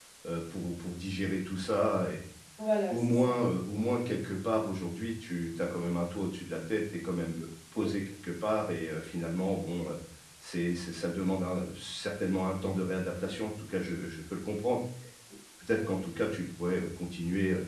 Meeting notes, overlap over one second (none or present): none